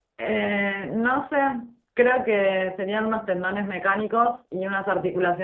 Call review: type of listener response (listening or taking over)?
listening